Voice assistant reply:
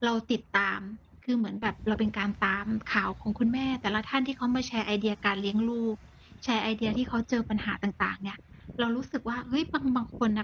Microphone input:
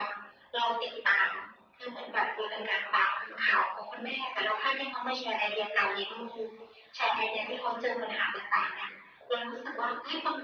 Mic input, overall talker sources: echo only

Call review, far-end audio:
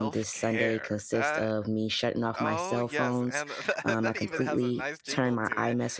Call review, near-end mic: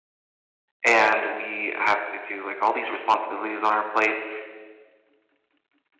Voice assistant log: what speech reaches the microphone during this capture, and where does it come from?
user only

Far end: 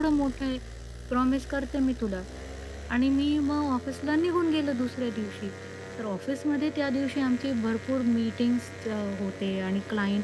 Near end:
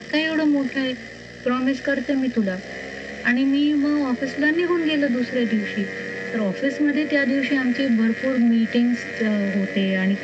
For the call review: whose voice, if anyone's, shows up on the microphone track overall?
echo only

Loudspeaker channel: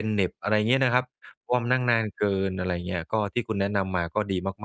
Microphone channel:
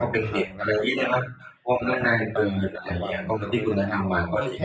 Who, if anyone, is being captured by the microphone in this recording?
both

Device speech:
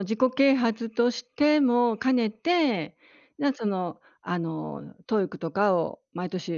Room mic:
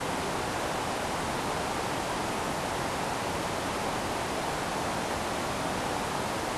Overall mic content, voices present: neither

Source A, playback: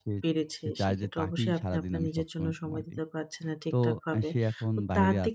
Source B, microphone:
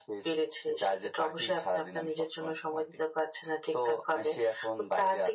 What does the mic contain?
echo only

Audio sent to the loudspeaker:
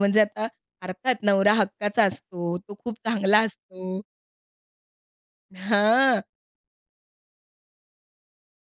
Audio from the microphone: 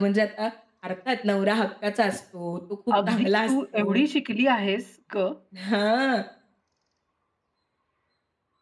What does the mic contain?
both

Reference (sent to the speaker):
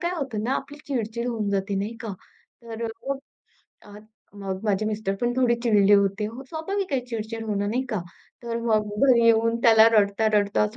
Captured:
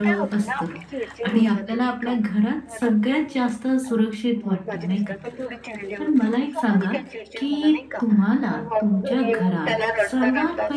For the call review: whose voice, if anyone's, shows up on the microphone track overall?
both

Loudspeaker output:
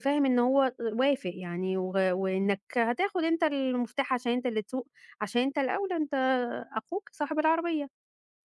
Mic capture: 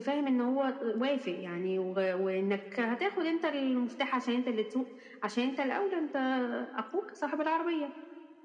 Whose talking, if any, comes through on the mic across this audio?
echo only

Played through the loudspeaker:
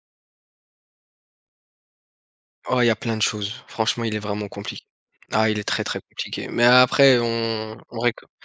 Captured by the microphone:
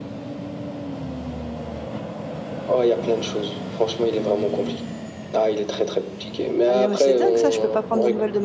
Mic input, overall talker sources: both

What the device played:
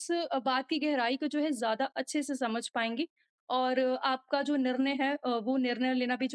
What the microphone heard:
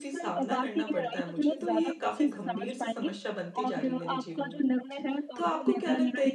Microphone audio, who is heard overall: both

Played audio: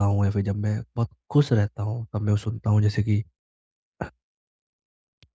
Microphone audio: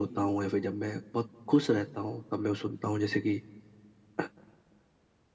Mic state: echo only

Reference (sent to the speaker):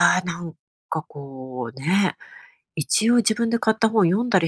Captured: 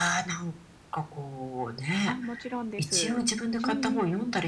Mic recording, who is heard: both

